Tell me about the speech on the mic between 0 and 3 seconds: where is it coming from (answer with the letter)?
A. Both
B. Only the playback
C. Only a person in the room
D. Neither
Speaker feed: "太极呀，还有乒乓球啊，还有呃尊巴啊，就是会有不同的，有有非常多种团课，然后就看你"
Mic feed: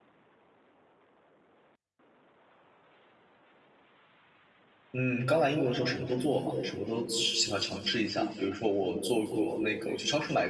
D